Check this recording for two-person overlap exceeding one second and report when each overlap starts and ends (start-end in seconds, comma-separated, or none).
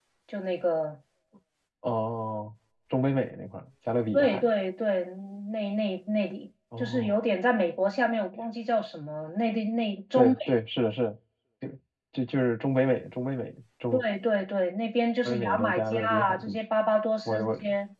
15.2-16.6